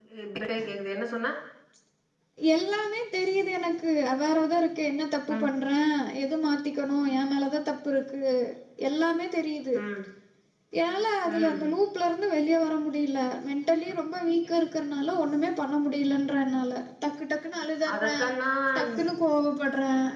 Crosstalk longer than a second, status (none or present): none